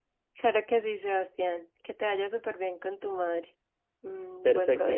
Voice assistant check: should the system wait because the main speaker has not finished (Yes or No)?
No